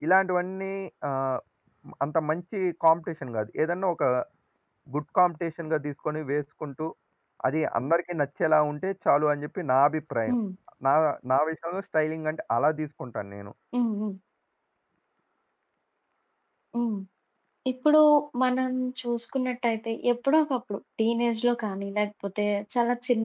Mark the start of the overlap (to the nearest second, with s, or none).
none